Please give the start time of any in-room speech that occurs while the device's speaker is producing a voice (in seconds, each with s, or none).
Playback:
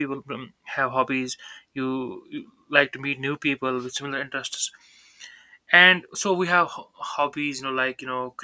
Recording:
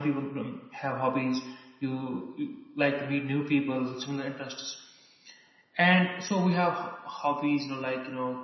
none